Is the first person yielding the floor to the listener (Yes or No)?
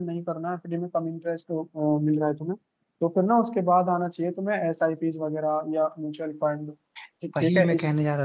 Yes